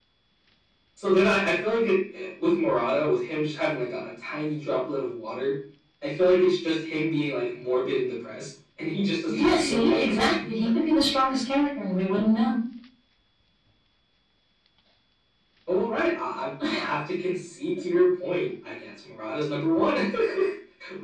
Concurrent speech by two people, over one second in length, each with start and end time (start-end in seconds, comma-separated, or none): 9.3-10.8